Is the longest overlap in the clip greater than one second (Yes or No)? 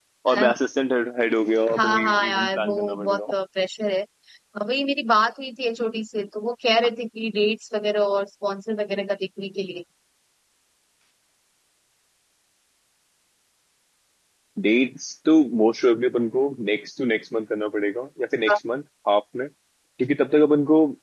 Yes